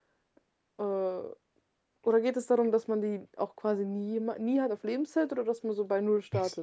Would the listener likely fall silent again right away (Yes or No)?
No